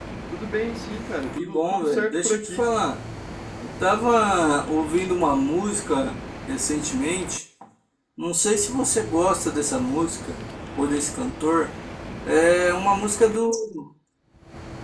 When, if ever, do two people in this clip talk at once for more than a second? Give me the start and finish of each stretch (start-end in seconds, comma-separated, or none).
1.4-2.6